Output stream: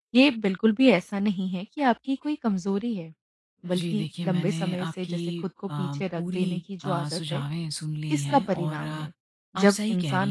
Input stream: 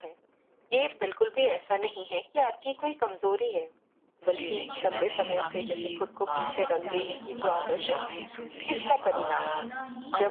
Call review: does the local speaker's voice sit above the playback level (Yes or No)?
No